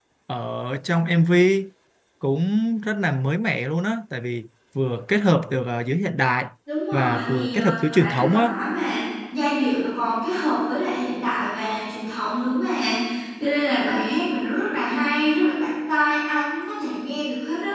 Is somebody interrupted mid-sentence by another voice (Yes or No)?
Yes